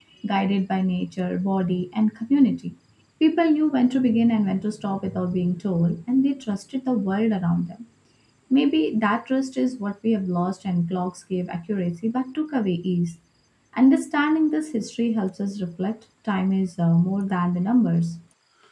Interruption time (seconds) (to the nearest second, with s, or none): none